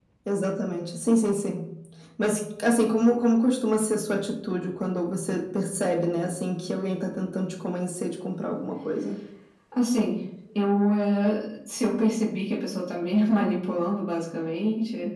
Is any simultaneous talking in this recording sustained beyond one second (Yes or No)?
No